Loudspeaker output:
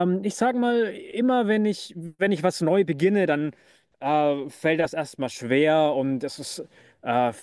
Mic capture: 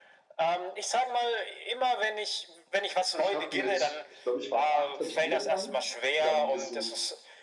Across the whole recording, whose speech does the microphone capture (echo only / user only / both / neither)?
both